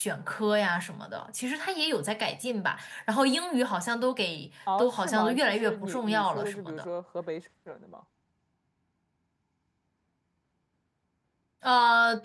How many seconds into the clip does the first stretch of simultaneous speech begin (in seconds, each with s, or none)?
4.7 s